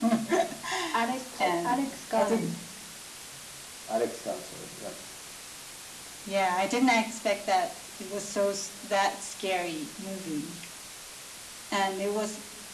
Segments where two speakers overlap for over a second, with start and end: 1.1-2.5

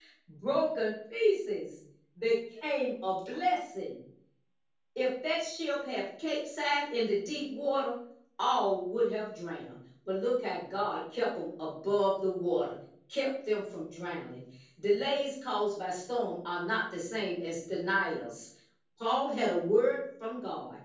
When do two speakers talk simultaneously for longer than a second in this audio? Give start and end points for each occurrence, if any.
none

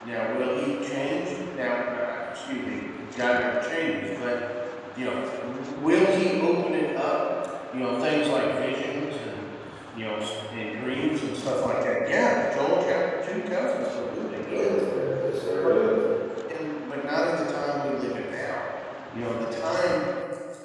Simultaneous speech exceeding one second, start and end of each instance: none

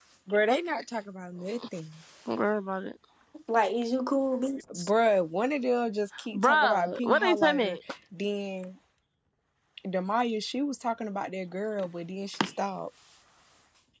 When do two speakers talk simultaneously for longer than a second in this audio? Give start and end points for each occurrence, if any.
6.3-7.8

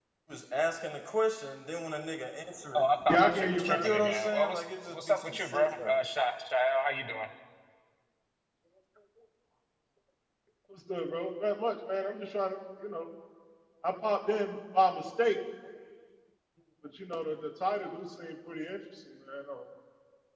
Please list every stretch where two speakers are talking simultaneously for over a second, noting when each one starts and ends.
3.1-6.0

